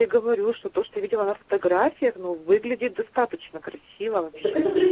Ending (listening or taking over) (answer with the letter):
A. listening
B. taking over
B